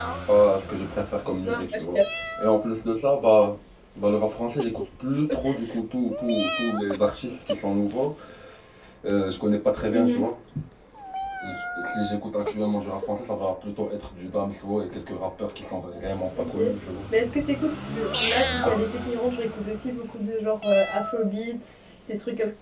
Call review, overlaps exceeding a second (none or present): none